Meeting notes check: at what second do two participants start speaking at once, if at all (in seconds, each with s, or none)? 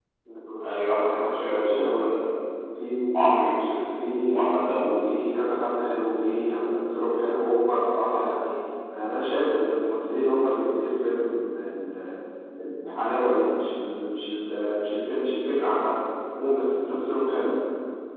0.7 s